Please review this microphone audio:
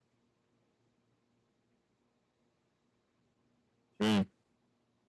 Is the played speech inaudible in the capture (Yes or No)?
Yes